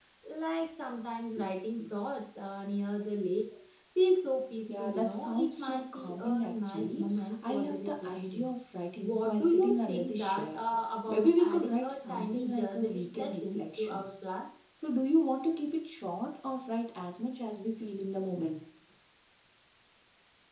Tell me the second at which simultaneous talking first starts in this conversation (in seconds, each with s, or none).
4.7 s